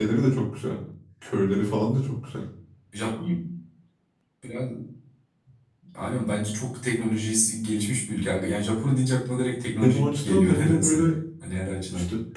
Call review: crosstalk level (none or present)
present